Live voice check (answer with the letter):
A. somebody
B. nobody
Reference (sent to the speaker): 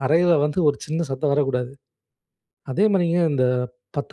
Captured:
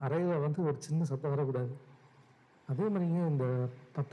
B